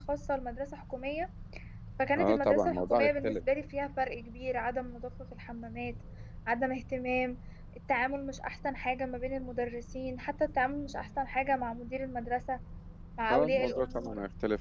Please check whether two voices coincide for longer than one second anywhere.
Yes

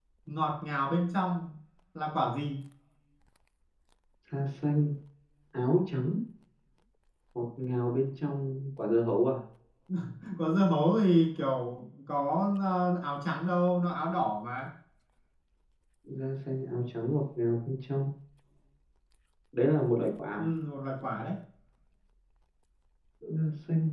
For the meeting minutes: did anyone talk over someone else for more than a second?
No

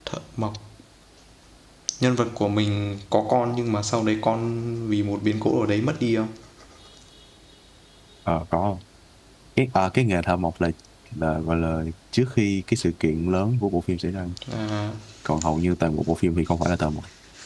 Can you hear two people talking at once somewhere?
No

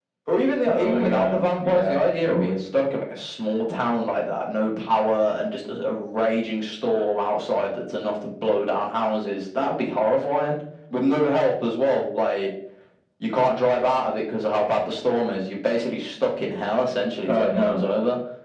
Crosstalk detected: Yes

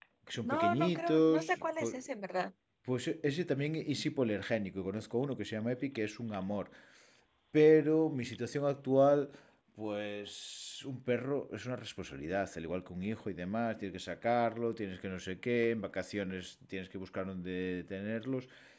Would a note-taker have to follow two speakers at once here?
Yes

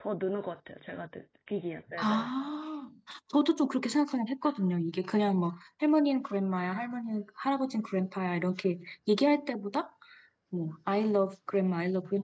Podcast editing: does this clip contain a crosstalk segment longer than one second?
No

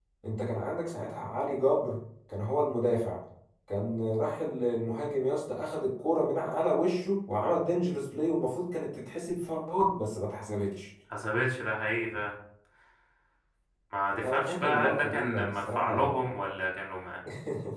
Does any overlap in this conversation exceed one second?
Yes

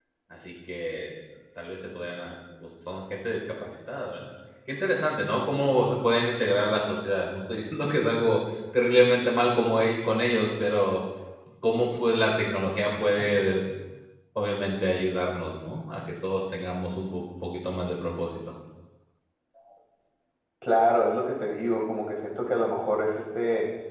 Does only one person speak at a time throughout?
Yes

